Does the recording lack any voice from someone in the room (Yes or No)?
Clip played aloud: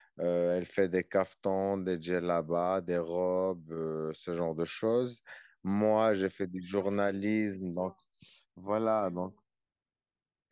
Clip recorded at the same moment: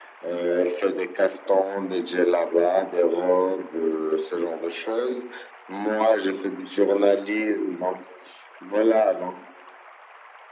Yes